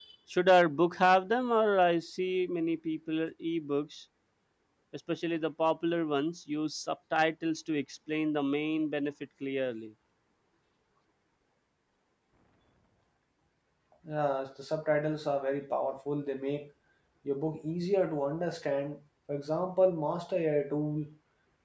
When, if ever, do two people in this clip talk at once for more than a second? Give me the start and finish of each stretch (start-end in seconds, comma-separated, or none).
none